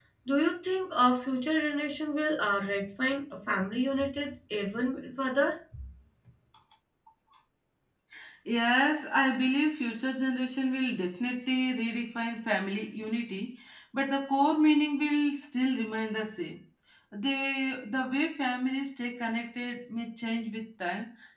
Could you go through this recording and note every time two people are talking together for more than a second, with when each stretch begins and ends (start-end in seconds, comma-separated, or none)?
none